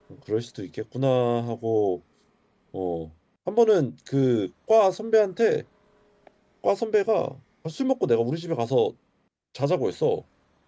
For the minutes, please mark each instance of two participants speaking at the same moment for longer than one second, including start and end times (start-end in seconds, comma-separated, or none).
none